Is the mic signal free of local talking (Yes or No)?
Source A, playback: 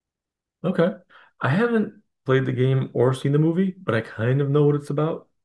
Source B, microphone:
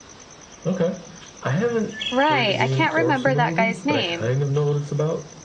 No